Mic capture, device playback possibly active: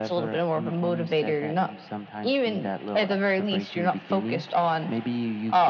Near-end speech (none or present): none